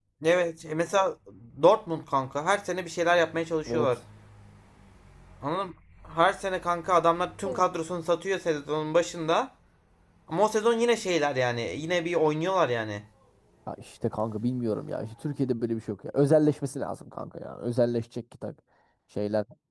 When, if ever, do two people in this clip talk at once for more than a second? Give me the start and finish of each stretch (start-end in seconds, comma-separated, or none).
none